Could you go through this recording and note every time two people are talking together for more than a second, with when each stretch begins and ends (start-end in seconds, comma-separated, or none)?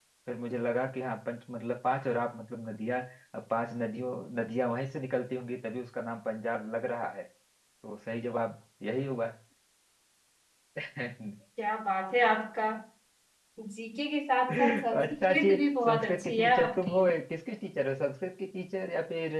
14.5-16.9